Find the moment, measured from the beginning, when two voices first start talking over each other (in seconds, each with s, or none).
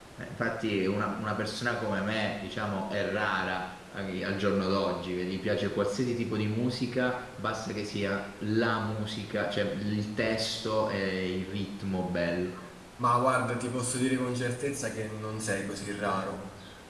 none